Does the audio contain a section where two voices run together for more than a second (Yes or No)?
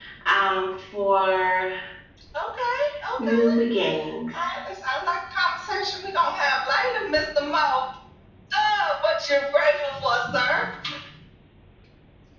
No